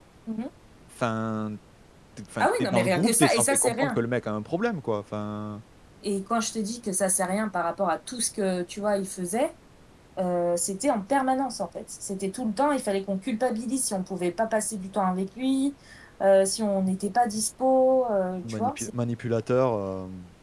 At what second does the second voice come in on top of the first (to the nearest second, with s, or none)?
2 s